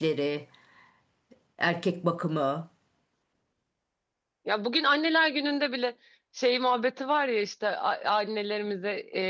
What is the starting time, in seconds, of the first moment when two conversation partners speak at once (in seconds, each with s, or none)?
none